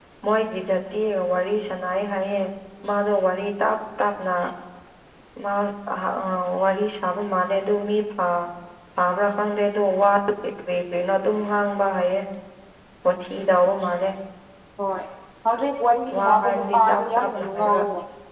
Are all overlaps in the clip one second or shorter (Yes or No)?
No